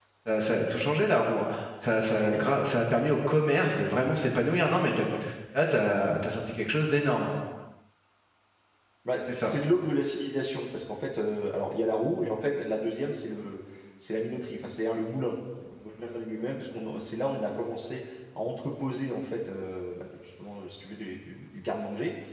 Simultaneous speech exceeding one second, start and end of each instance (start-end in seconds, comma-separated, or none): none